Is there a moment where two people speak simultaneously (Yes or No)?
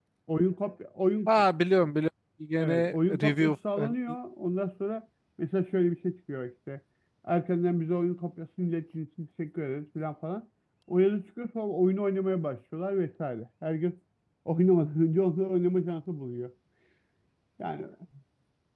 Yes